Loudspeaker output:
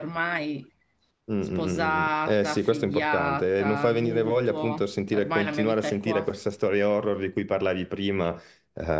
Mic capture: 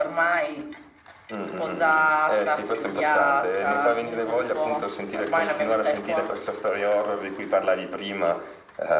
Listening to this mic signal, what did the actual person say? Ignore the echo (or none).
none